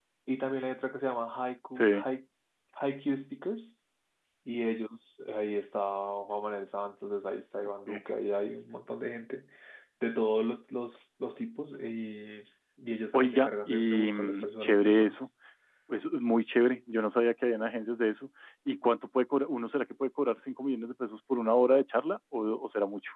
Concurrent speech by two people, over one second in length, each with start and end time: 13.1-15.2

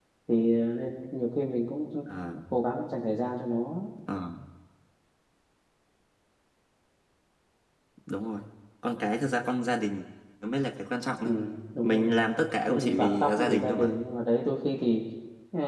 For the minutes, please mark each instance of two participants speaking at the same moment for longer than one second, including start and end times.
12.7-14.0

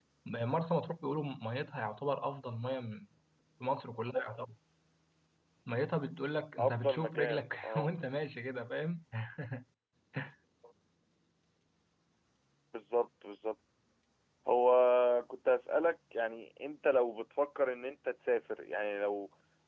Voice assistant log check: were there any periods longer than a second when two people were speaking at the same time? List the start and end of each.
6.6-7.9

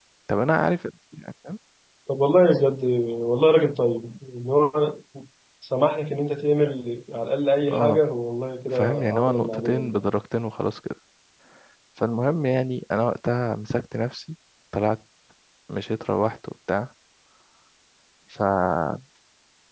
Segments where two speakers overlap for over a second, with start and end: 8.8-10.1

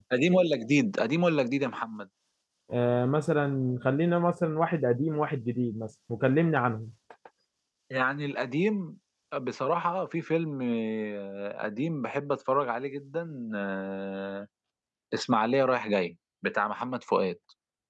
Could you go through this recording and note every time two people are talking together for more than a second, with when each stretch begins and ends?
none

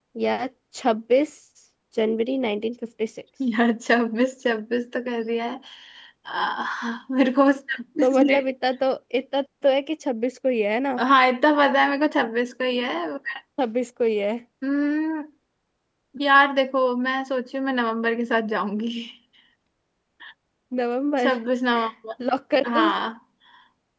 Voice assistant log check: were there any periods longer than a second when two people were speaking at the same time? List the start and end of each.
none

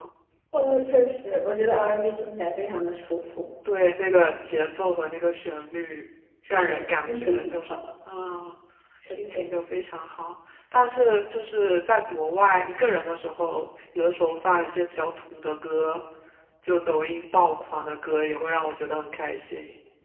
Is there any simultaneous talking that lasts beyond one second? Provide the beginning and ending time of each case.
6.5-7.8

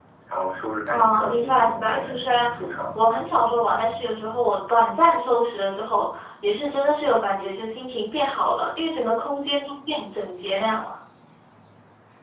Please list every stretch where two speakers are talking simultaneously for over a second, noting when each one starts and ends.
0.9-2.5

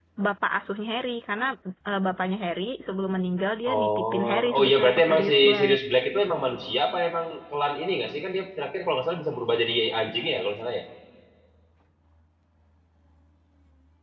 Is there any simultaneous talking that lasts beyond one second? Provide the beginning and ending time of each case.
3.7-5.8

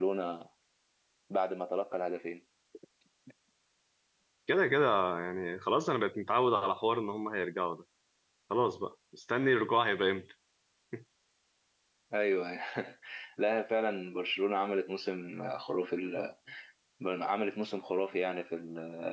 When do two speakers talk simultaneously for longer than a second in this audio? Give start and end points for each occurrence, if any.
none

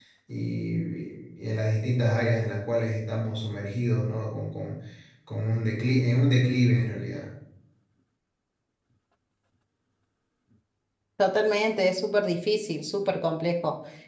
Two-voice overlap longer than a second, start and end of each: none

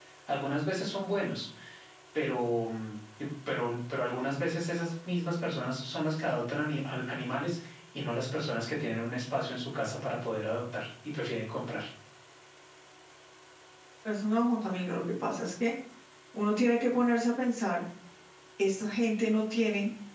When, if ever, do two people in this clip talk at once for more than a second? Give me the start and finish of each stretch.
none

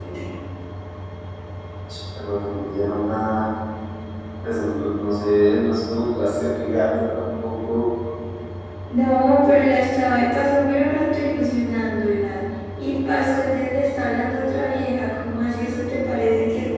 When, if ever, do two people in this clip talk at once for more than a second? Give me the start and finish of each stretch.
none

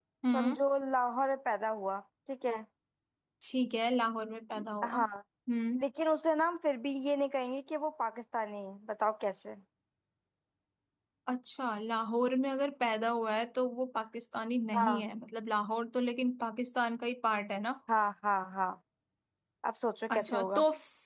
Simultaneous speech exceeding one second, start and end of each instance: none

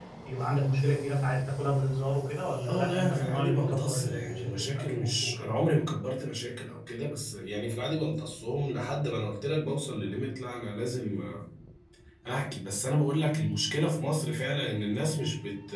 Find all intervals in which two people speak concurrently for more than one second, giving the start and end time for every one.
2.7-5.5

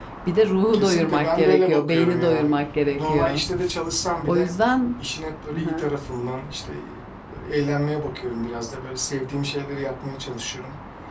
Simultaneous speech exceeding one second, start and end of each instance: 0.7-2.5

